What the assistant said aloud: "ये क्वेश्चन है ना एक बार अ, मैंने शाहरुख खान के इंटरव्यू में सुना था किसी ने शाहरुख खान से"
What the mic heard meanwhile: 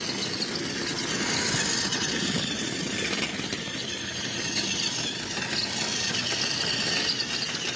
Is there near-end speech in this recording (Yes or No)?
No